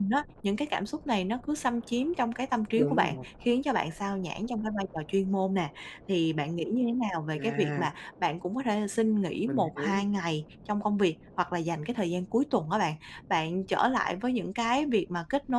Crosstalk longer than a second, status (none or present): none